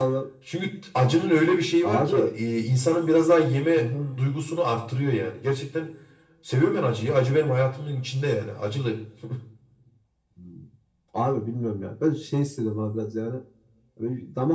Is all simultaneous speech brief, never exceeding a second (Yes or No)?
Yes